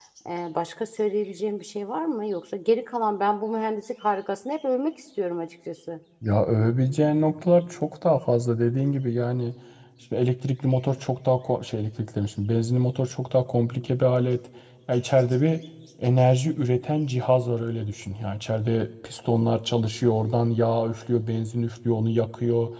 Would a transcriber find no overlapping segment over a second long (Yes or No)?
Yes